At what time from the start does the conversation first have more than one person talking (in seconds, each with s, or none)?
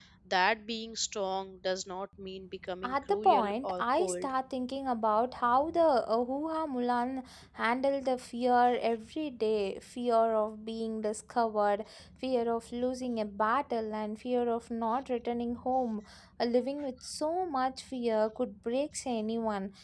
2.8 s